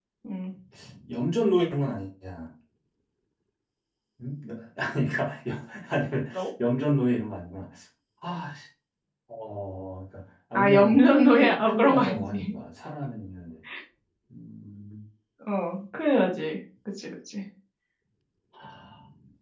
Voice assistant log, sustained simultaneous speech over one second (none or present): present